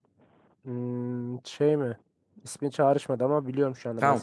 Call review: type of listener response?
taking over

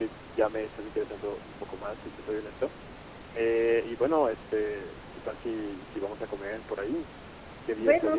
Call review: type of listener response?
taking over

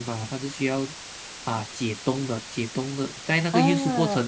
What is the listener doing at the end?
listening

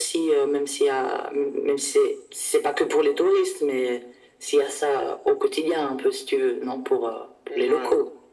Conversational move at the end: taking over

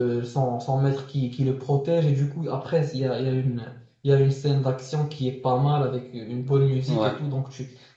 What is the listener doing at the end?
listening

